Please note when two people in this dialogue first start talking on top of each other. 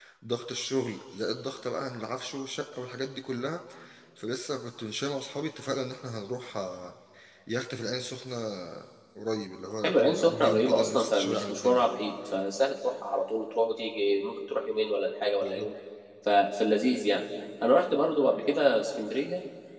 9.8 s

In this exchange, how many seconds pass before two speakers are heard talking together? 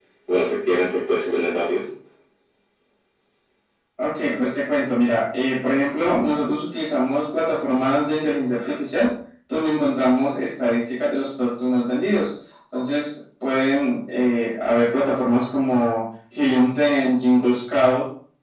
none

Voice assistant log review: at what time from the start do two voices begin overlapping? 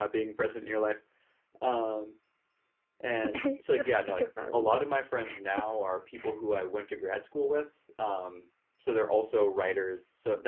3.2 s

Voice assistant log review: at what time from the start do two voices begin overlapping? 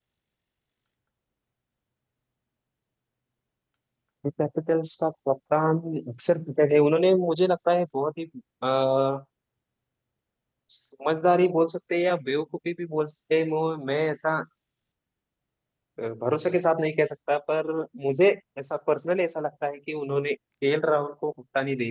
none

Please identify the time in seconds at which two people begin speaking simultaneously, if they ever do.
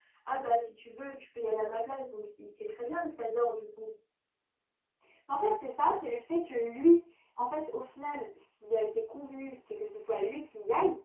none

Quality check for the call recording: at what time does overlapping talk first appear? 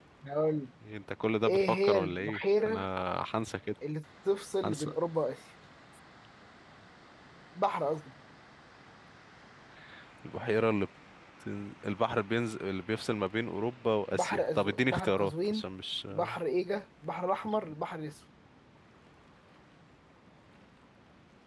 1.5 s

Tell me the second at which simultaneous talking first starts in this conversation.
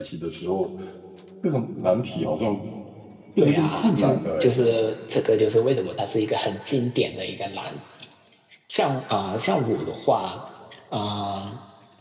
3.4 s

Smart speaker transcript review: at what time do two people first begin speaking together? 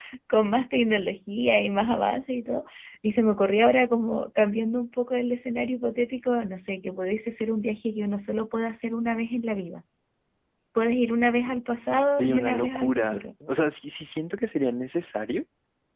11.9 s

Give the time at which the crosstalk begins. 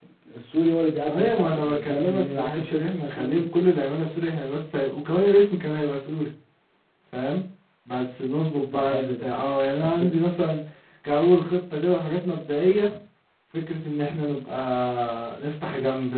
1.1 s

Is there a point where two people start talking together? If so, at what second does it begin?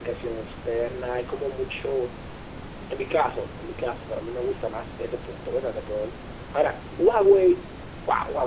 none

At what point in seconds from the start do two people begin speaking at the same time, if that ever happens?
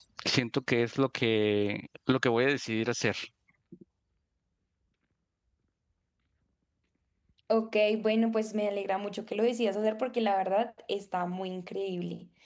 none

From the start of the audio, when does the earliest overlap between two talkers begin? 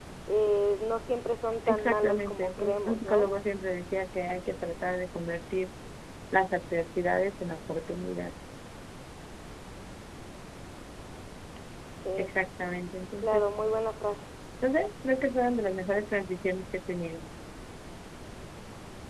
1.7 s

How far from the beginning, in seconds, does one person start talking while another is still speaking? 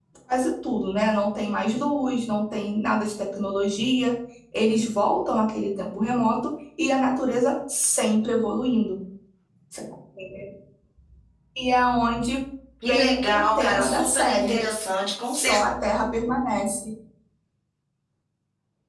12.9 s

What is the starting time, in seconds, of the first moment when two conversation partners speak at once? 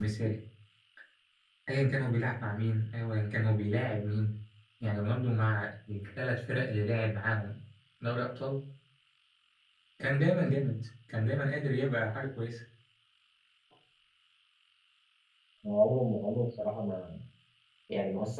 none

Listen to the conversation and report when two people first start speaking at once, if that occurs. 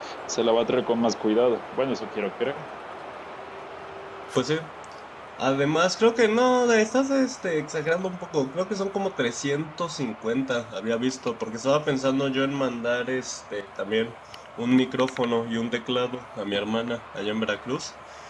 none

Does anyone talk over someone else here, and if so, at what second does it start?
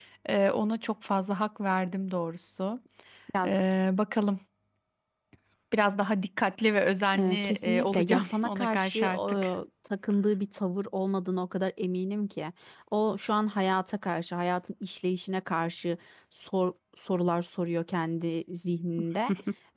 7.1 s

